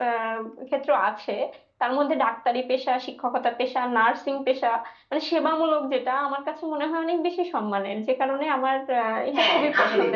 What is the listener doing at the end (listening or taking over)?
taking over